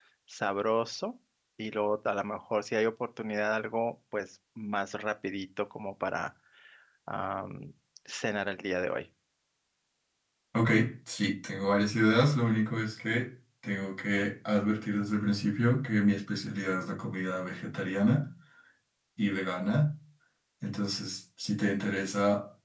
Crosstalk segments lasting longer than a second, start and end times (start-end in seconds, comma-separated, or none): none